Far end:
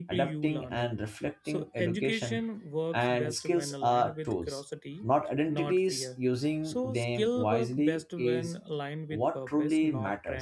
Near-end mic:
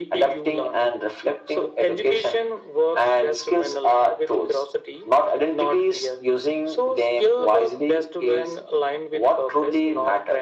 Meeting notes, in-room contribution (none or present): none